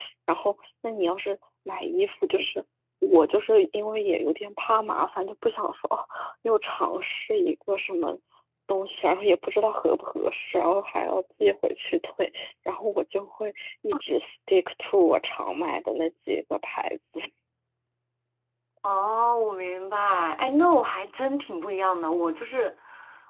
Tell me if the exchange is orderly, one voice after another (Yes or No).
Yes